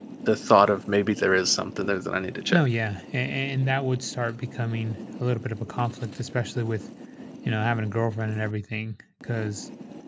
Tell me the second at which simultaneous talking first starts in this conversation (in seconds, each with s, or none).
none